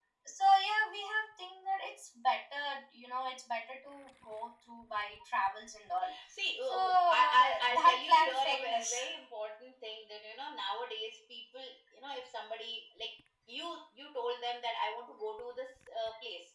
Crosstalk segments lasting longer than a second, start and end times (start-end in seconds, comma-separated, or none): 6.6-9.0